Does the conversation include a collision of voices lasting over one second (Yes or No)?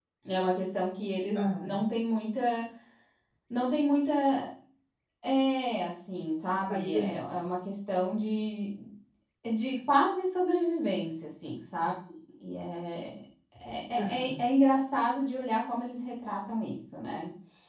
No